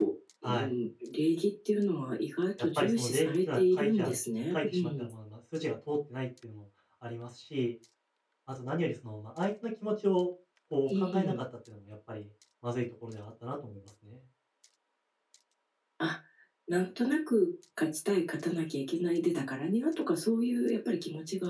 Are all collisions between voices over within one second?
No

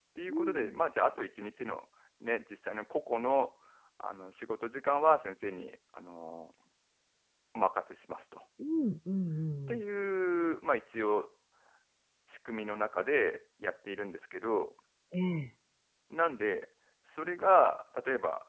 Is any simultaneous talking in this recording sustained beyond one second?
No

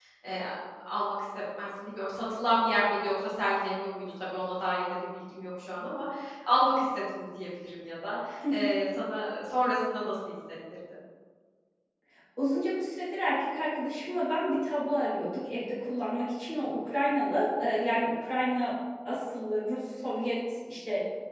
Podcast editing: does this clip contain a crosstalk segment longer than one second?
No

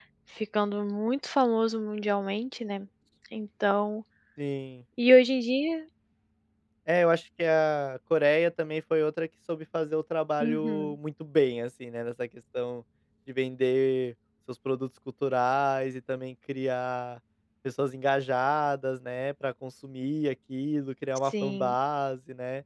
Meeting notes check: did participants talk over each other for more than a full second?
No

